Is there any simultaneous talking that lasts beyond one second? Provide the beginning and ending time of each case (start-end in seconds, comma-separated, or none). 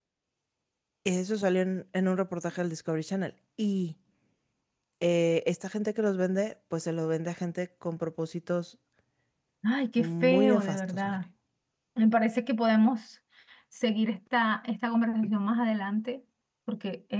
9.9-11.2